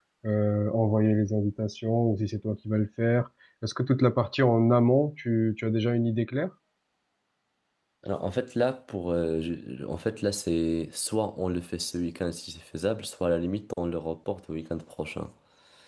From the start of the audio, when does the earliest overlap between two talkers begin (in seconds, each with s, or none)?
none